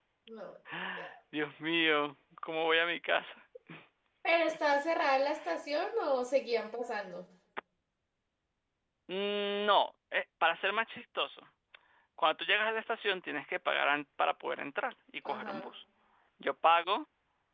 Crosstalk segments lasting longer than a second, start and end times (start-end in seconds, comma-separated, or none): none